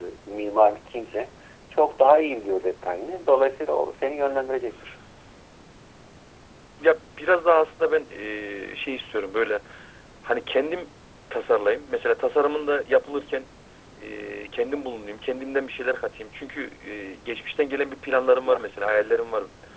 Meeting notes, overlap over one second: none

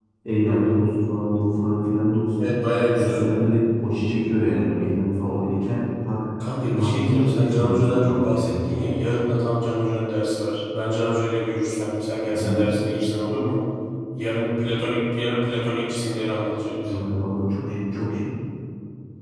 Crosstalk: present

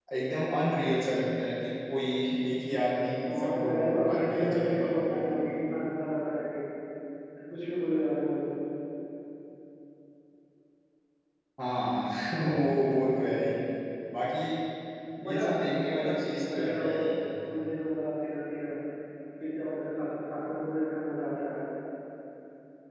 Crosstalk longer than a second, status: present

